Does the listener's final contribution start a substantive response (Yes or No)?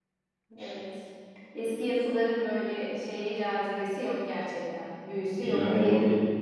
Yes